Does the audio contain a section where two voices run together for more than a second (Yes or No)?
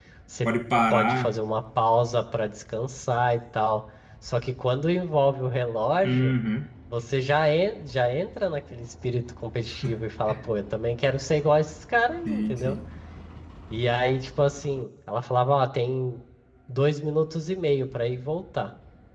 No